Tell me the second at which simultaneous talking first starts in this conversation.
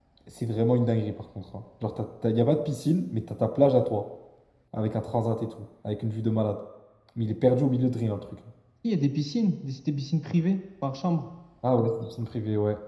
none

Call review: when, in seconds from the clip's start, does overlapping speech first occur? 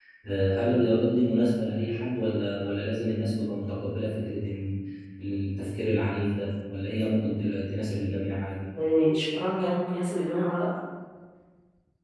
none

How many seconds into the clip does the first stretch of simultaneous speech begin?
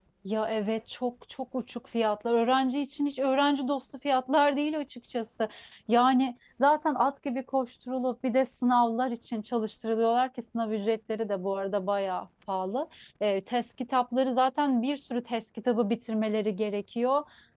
none

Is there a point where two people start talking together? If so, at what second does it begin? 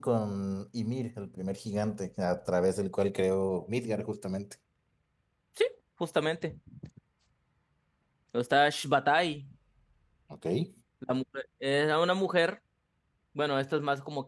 none

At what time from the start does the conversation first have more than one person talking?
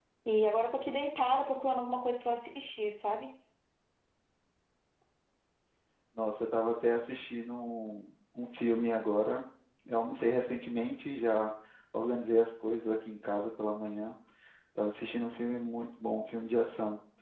none

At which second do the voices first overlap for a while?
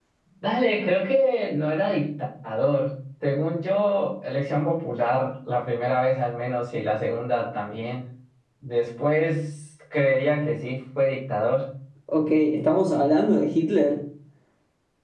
none

